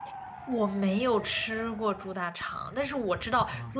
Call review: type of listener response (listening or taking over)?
listening